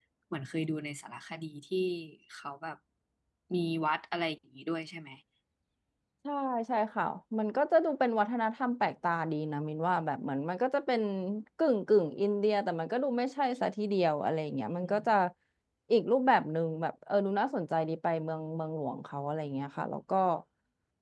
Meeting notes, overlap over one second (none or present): none